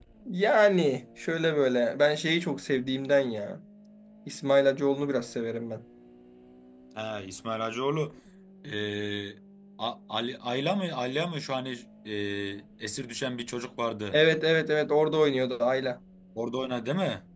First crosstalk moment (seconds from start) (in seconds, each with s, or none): none